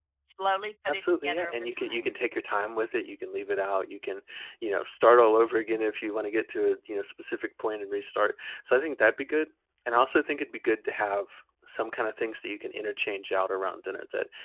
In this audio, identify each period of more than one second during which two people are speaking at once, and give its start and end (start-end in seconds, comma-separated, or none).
0.9-2.1